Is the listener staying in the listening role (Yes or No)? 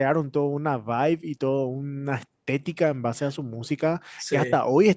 Yes